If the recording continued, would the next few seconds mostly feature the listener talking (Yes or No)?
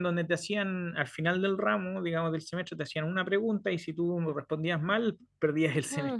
Yes